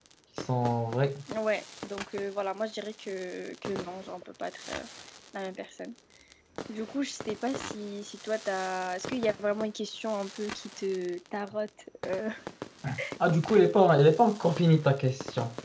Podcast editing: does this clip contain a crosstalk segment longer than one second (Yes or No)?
No